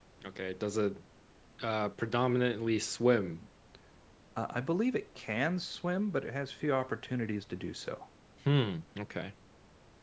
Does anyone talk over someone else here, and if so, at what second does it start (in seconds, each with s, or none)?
none